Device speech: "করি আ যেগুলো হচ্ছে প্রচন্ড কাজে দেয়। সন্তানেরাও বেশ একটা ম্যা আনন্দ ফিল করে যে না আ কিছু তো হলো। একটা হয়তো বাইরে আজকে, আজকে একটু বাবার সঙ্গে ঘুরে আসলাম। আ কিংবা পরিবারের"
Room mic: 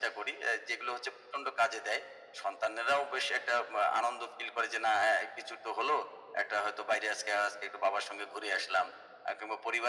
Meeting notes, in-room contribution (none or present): none